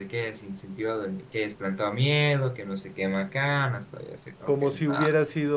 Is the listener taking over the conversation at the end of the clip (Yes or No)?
Yes